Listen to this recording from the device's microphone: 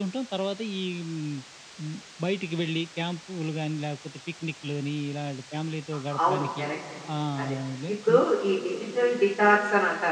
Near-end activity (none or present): present